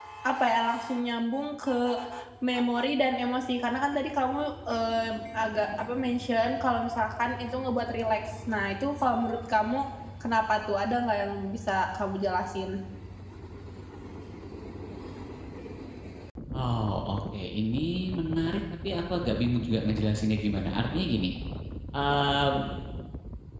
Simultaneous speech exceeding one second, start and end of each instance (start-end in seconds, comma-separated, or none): none